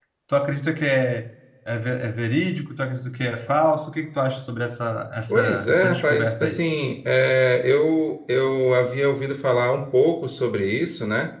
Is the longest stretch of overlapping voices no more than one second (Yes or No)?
No